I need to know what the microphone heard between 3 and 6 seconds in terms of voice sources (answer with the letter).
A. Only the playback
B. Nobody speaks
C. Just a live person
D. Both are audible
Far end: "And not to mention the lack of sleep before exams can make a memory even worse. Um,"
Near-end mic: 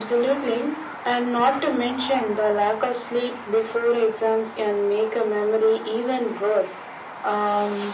A